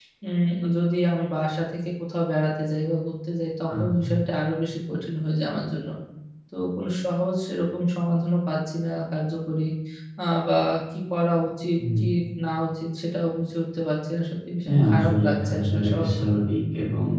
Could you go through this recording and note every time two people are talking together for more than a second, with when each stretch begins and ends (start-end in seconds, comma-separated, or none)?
14.7-16.4